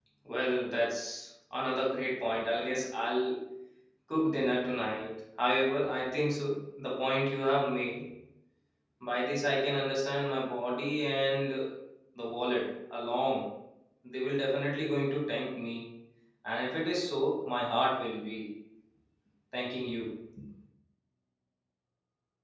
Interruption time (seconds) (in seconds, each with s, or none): none